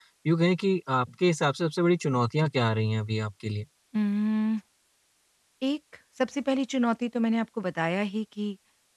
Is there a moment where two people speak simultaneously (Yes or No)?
No